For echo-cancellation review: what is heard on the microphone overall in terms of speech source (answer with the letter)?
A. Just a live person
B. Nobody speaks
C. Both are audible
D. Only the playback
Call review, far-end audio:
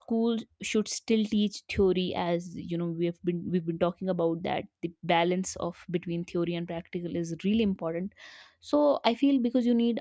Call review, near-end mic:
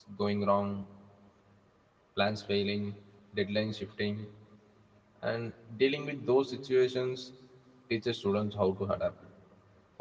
A